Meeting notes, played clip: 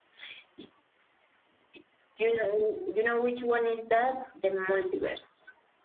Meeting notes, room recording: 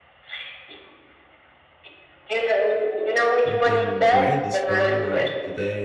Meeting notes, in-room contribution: present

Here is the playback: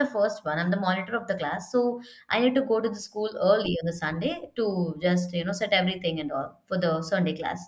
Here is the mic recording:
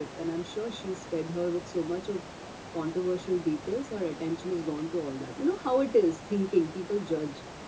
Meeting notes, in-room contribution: present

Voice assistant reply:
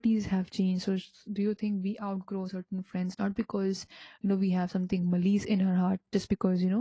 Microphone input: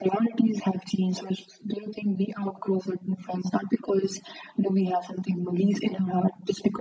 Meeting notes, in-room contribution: none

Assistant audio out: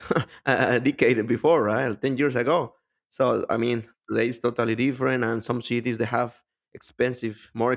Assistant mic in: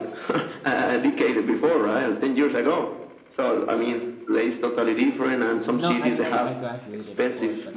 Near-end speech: present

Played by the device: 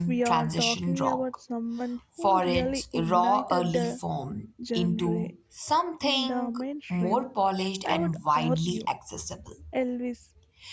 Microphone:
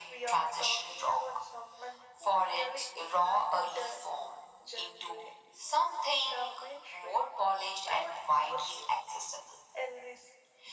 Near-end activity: none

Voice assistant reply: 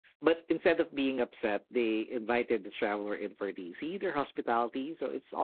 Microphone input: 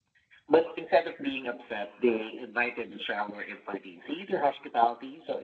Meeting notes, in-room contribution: none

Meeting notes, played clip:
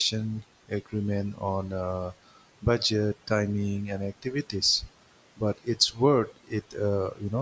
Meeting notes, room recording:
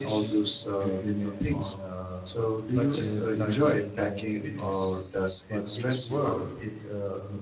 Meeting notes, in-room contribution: present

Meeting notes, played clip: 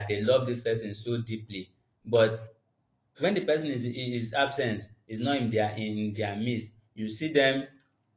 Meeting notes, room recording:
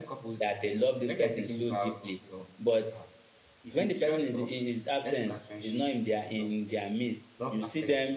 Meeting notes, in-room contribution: present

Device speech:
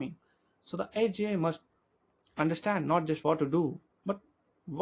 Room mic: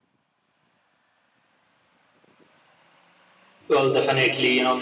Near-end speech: present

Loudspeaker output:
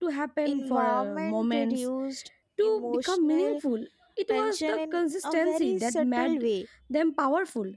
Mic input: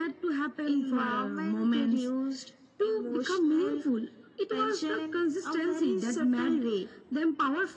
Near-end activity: none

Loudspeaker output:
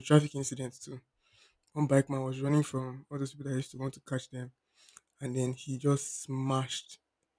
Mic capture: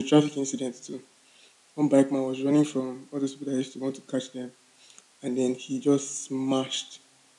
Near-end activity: none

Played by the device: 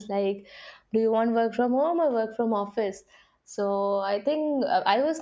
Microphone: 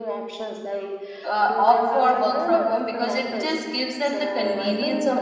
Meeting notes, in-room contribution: present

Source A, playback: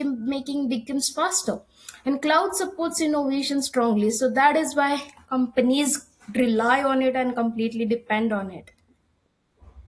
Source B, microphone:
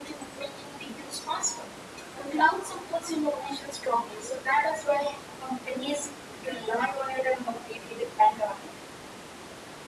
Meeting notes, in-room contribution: none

